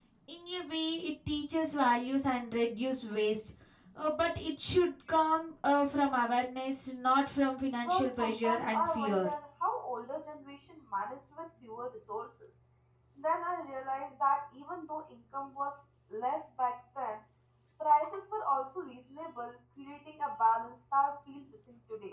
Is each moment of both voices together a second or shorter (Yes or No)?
No